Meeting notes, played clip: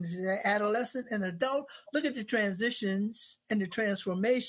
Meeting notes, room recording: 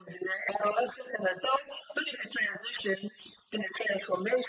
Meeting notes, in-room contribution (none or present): none